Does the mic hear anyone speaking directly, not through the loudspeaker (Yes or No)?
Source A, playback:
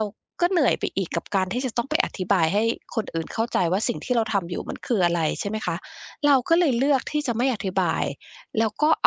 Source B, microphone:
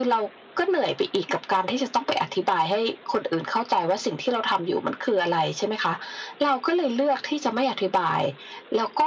No